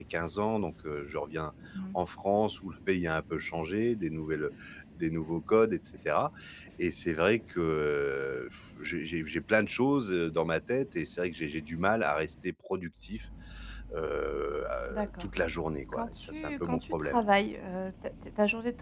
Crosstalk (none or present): present